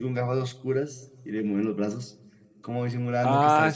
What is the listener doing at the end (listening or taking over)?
taking over